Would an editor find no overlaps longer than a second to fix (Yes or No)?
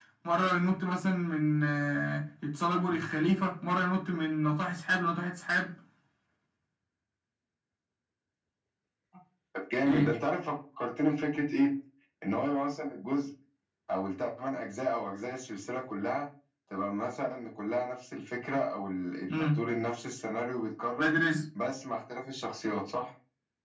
Yes